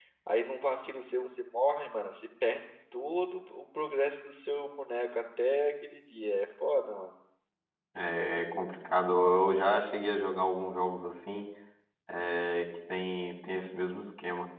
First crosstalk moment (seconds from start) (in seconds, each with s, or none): none